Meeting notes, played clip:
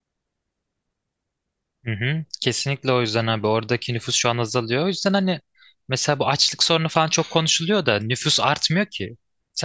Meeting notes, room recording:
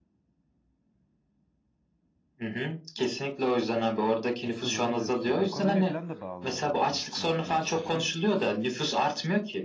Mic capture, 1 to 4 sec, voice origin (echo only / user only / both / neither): echo only